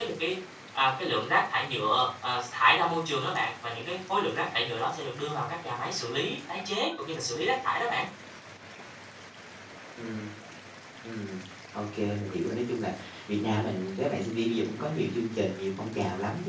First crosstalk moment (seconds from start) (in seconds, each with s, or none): none